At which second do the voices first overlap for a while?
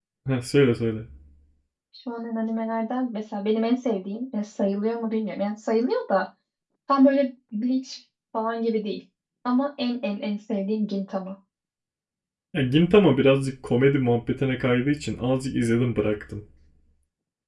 none

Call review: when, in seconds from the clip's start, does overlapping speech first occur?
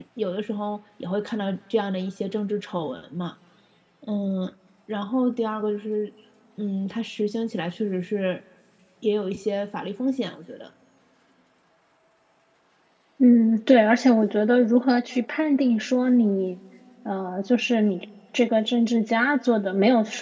none

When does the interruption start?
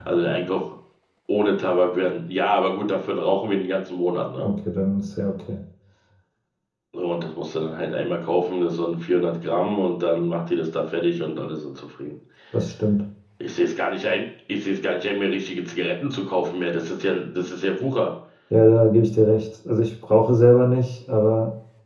none

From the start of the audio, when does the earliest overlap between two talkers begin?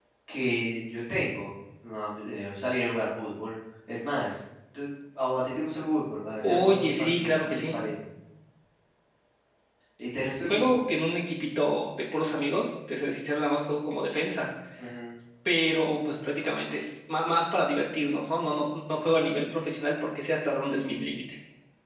6 s

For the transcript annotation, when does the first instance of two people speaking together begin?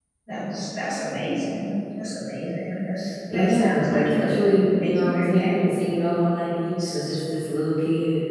3 s

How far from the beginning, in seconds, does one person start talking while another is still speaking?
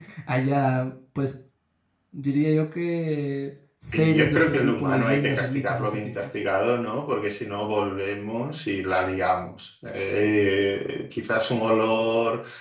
4 s

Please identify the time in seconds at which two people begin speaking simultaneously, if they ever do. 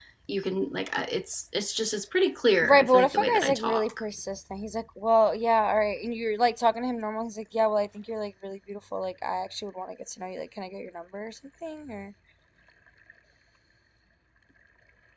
3 s

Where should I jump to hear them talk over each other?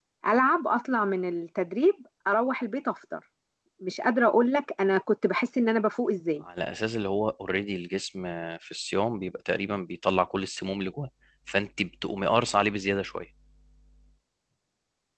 none

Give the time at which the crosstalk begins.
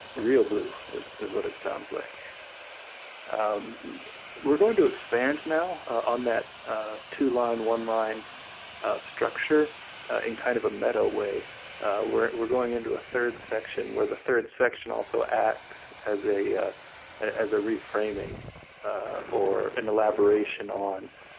none

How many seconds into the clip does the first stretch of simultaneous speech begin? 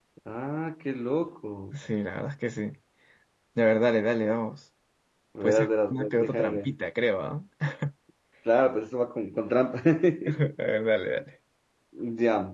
5 s

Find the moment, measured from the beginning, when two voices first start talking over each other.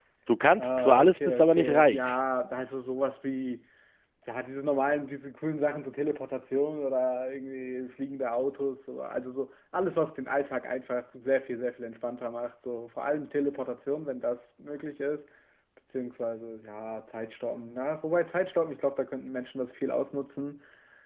1 s

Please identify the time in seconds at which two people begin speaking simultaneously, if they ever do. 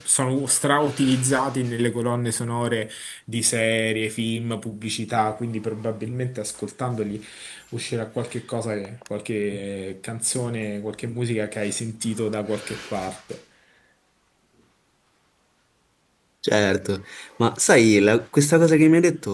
none

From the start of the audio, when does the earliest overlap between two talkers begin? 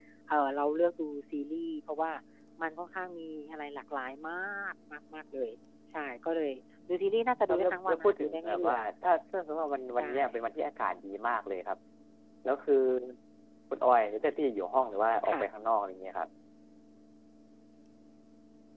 7 s

